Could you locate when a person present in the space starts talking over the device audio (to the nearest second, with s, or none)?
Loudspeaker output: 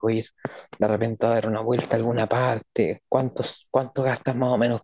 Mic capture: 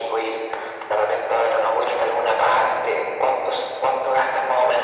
none